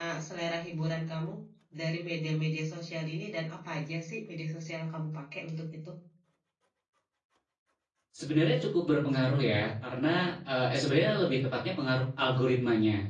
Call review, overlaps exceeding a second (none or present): none